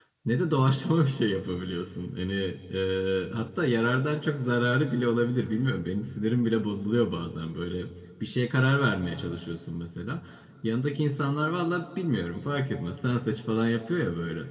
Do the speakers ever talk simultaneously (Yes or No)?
No